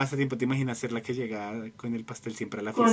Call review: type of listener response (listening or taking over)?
taking over